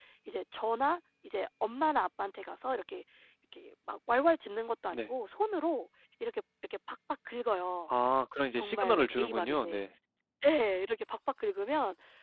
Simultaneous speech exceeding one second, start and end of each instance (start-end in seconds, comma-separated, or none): 8.5-9.8